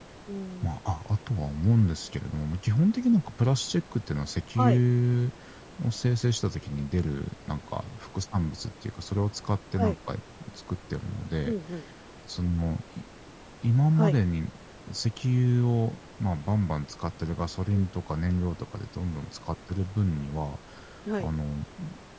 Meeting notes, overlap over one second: none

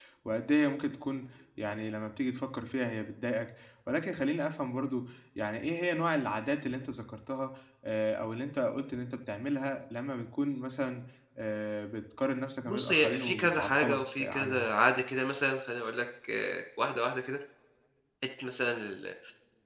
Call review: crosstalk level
present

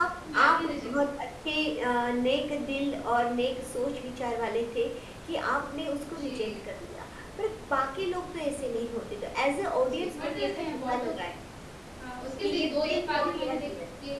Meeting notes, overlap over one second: present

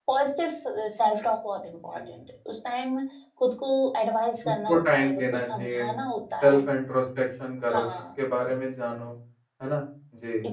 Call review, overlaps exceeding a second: present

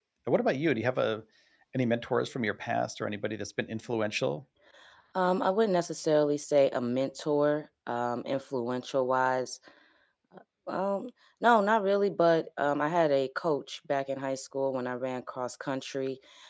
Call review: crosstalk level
none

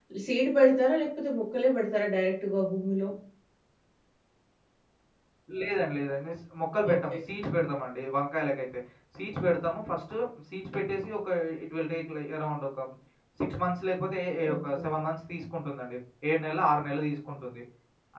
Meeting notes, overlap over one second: none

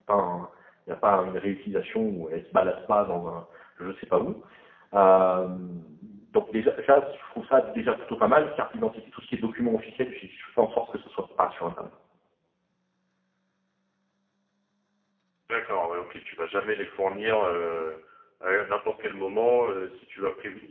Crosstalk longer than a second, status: none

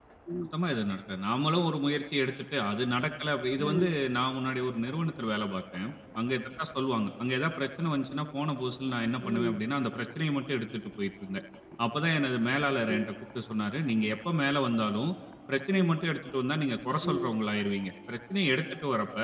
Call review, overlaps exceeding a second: none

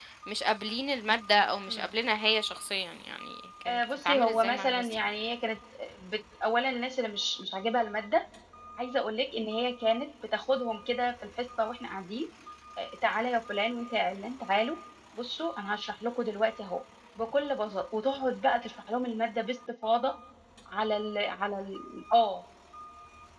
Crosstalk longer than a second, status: present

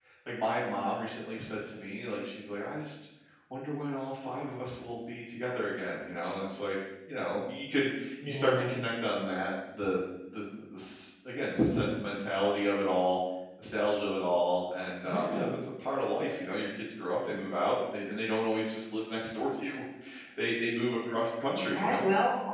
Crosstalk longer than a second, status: none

